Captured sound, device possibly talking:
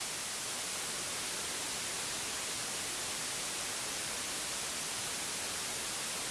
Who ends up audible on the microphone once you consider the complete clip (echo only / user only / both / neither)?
neither